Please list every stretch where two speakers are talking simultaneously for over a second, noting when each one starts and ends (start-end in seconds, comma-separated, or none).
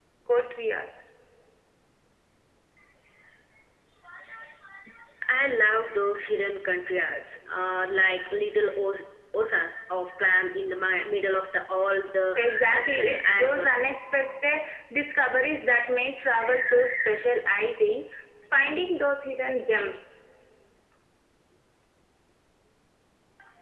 12.4-13.9